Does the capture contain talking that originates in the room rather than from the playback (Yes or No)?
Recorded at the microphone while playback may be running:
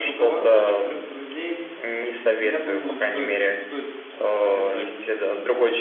Yes